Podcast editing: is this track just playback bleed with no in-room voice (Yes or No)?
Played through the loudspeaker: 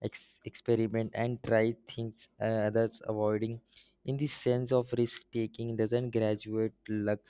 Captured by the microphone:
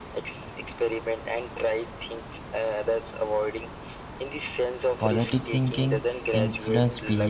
No